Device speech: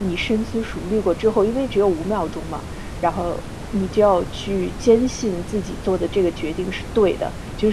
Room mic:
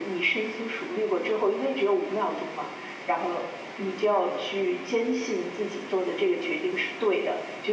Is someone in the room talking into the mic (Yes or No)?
No